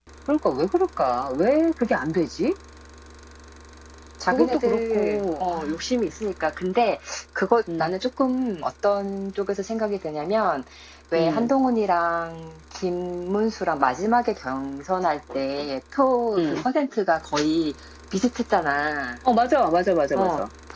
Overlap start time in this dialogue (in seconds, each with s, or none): 4.3 s